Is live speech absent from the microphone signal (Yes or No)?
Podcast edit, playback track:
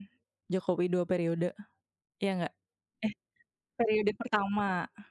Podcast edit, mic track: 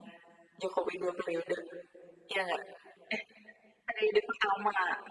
Yes